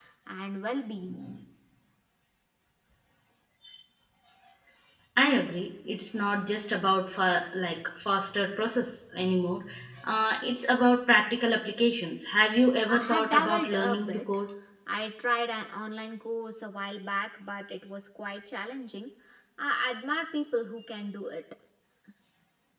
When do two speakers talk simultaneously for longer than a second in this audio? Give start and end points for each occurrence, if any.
12.9-14.2

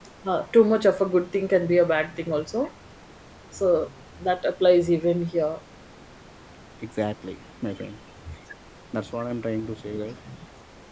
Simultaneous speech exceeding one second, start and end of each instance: none

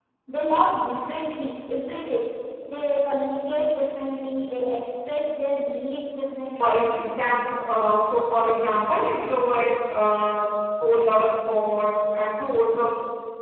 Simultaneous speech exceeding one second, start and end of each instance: none

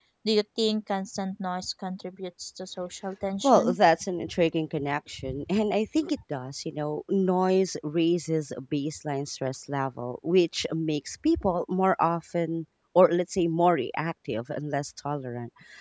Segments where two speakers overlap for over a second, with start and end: none

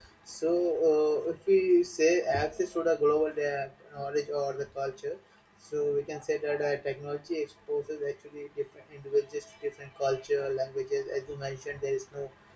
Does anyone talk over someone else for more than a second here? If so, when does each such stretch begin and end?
none

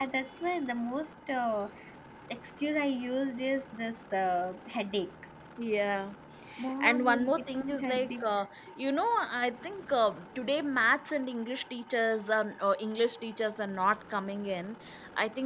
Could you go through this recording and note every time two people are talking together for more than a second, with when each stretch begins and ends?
6.8-8.1

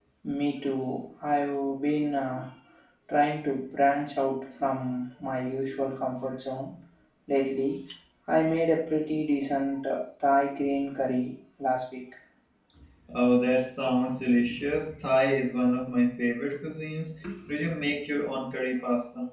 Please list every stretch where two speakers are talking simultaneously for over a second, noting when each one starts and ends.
none

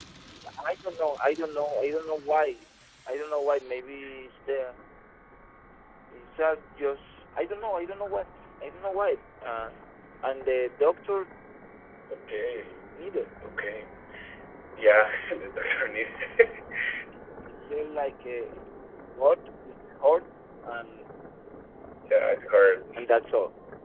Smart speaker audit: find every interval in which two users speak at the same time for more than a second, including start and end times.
none

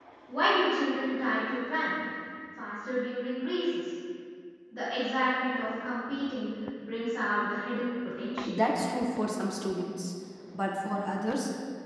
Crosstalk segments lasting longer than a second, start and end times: none

